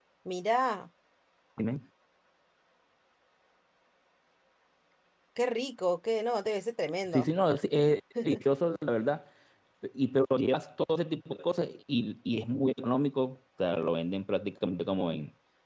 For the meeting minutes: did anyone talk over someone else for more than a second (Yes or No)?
No